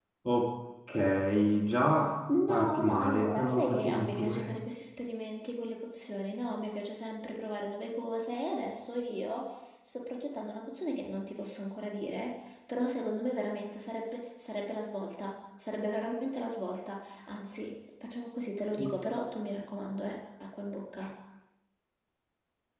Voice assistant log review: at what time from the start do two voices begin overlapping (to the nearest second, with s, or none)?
2 s